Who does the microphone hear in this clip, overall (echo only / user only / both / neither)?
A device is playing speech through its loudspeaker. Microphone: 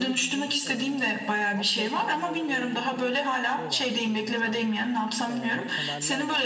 both